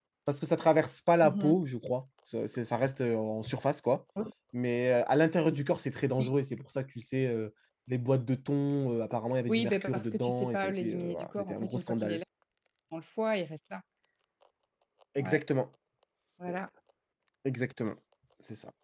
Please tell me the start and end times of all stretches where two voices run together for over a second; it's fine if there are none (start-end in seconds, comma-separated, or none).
9.5-12.2